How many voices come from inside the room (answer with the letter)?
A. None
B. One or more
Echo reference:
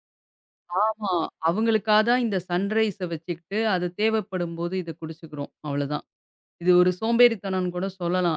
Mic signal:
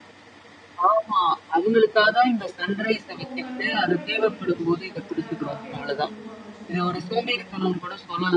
B